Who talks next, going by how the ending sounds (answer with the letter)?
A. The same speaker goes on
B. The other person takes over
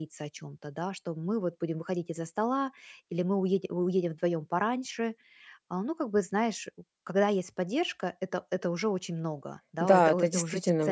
B